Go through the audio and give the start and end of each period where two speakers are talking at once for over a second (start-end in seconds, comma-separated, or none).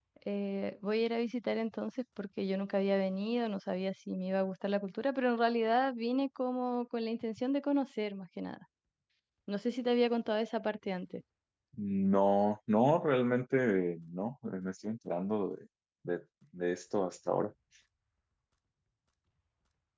none